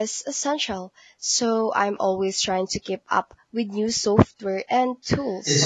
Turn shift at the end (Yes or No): Yes